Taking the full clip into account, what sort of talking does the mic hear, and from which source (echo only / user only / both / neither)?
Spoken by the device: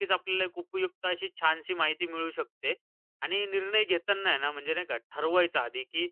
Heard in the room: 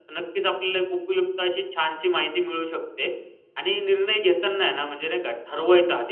echo only